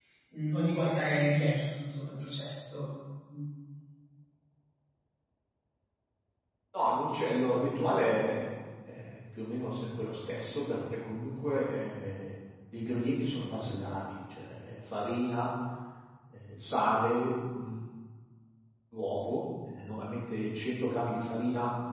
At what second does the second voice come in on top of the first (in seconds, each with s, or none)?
none